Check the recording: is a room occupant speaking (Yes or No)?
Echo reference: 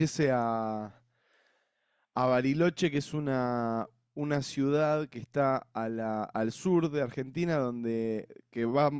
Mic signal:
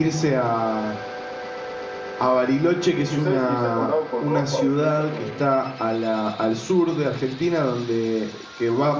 Yes